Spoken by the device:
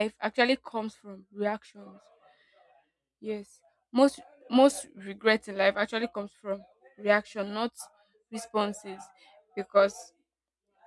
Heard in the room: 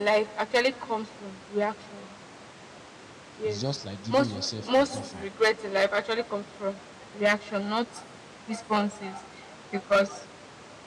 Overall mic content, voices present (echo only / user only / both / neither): both